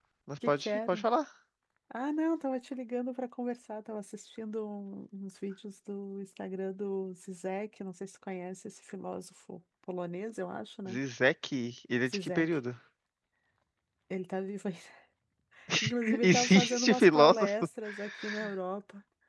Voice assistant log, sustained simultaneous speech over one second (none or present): present